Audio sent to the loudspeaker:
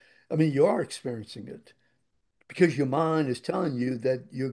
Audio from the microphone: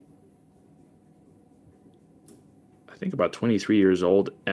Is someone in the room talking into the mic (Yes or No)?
Yes